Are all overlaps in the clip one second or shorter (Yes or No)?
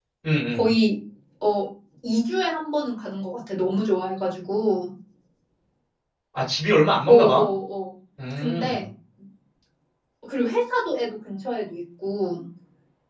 Yes